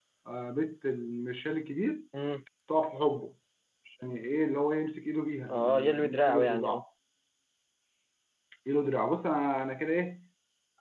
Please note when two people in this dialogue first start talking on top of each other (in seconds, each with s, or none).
5.5 s